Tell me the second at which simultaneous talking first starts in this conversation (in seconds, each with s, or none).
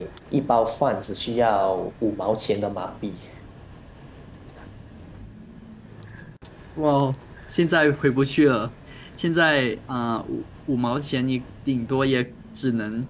none